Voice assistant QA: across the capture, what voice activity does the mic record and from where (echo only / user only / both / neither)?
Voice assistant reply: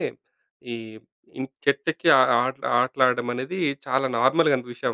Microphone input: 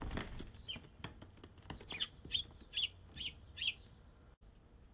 neither